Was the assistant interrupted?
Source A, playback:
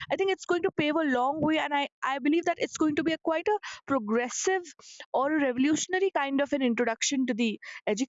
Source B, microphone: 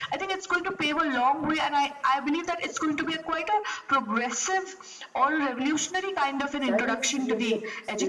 Yes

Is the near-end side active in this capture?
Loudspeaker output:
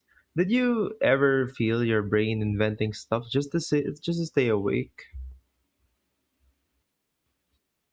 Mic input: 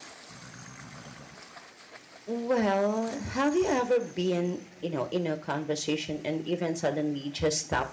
Yes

